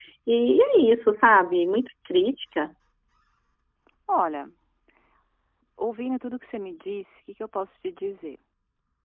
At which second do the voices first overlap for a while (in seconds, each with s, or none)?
none